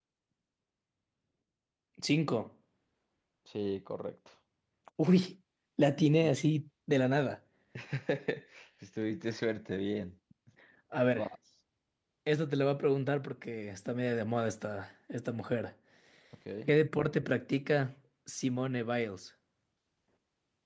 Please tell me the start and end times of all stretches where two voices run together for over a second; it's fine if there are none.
none

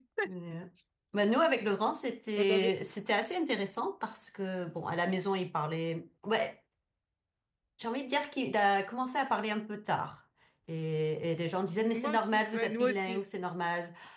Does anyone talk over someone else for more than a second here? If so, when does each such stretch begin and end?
11.9-13.2

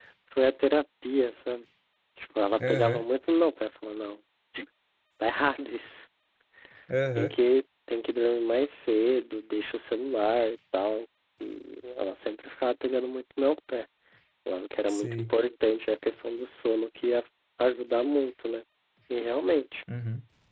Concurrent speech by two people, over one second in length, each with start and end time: none

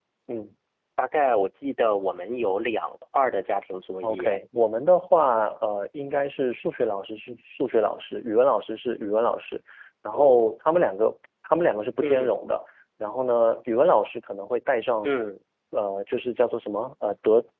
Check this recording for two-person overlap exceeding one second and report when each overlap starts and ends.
none

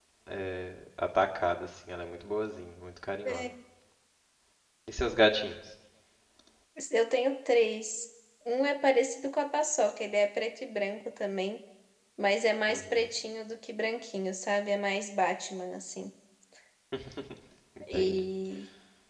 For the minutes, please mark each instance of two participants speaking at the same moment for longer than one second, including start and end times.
none

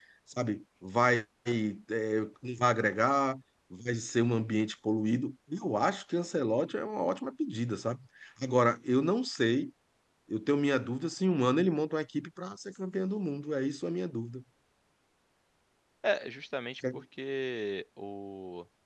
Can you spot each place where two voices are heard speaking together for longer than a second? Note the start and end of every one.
none

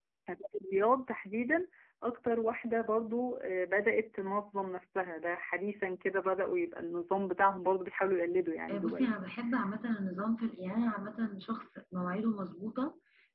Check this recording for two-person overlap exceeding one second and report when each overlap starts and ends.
none

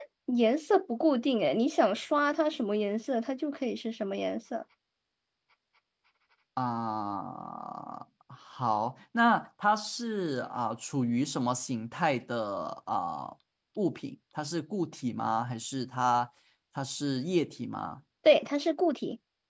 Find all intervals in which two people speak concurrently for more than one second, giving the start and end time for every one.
none

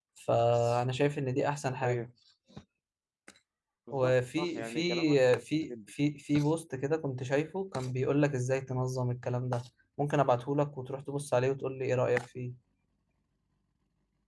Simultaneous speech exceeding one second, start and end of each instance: 3.9-5.9

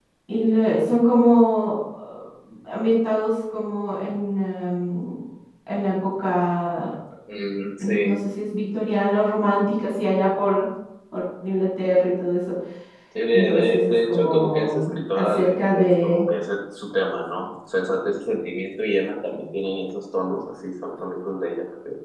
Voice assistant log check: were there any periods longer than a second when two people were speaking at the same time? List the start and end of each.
13.3-16.2

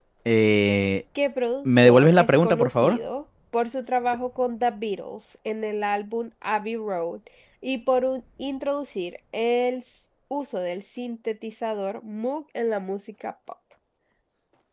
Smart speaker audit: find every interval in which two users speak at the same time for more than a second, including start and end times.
1.6-3.0

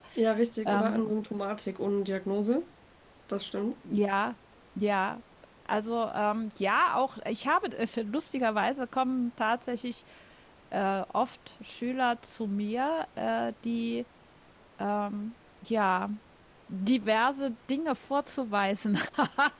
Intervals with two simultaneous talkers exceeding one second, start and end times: none

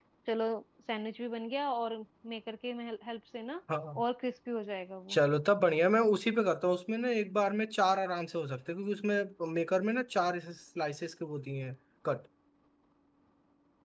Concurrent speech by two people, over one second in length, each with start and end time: none

